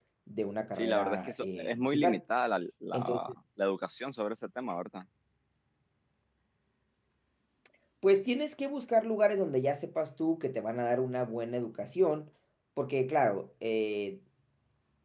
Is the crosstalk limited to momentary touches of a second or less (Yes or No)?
No